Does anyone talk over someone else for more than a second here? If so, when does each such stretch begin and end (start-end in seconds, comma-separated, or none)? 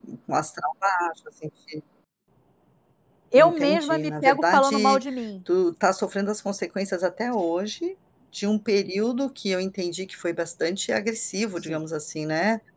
3.4-5.0